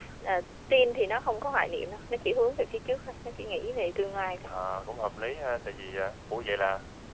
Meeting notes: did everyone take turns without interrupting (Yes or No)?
Yes